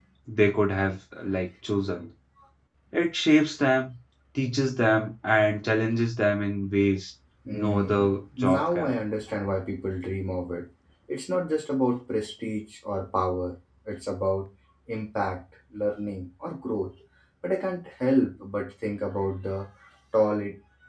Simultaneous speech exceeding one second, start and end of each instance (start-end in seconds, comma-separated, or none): 7.5-8.9